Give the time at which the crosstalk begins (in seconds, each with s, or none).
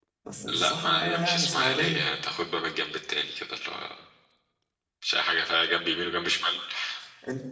0.6 s